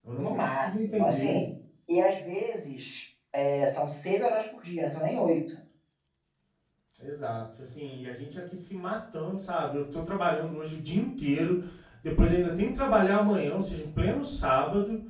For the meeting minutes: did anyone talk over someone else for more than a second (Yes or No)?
Yes